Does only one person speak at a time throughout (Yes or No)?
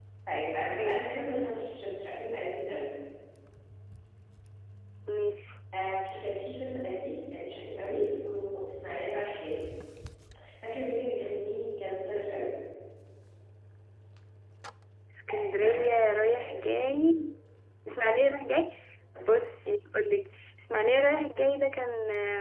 No